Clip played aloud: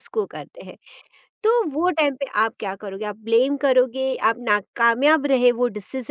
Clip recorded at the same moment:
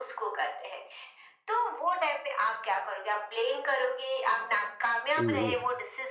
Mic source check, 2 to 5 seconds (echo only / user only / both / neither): echo only